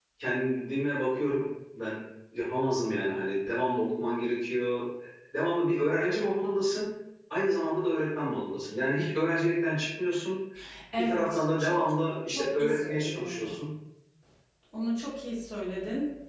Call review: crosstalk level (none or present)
present